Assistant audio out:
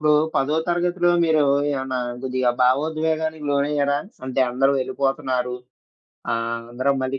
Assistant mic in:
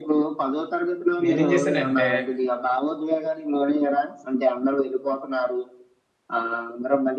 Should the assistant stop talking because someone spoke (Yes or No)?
Yes